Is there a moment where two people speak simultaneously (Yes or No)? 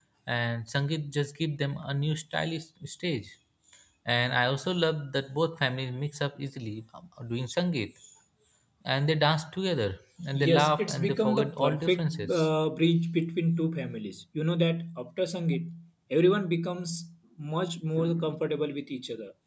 Yes